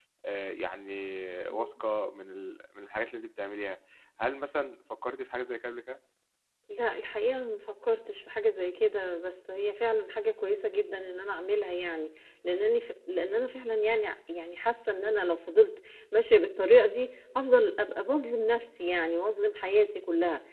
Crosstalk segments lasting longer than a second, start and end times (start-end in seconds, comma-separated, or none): none